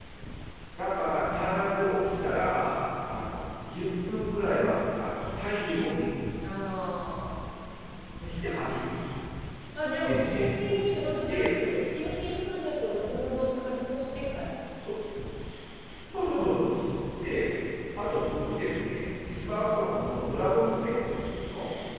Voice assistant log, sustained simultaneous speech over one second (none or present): none